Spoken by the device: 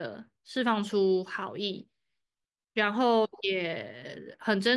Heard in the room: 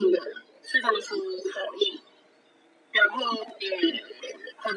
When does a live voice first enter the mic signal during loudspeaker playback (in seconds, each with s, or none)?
none